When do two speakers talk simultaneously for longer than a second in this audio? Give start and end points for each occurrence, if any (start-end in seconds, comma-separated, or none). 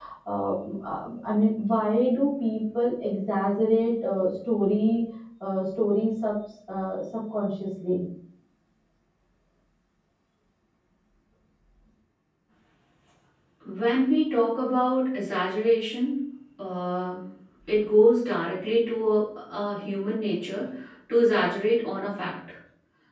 none